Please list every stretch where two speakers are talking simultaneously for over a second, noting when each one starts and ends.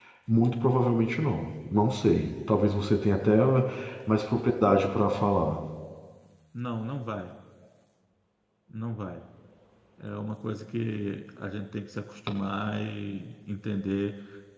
none

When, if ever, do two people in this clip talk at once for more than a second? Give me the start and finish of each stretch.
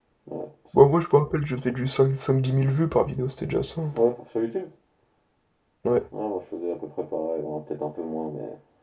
none

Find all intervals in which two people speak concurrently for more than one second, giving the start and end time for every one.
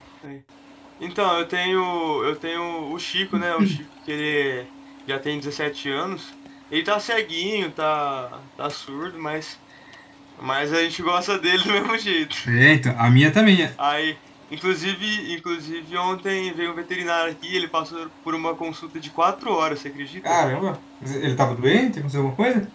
none

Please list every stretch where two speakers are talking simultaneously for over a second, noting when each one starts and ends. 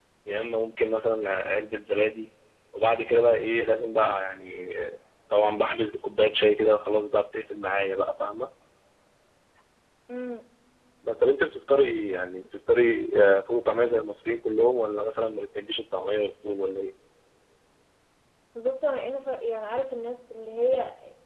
none

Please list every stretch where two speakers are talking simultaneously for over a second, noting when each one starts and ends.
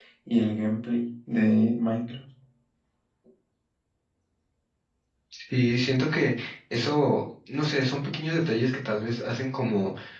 none

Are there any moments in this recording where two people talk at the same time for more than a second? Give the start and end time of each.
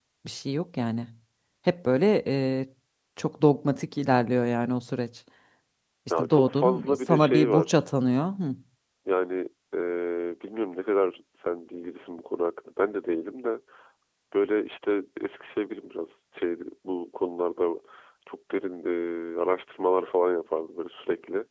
6.1-7.8

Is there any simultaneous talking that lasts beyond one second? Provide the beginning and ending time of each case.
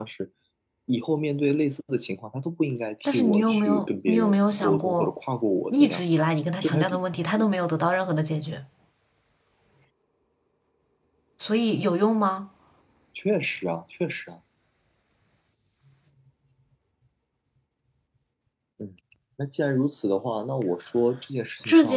3.0-5.1

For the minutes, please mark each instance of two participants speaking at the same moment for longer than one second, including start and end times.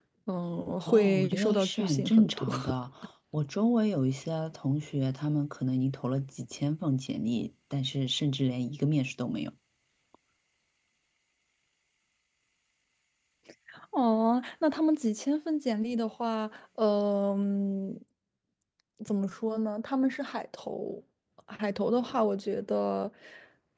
0.9-2.5

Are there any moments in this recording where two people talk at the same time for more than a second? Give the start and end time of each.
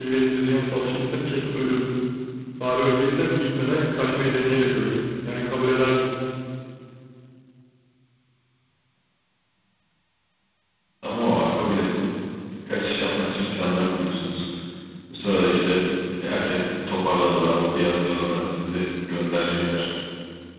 none

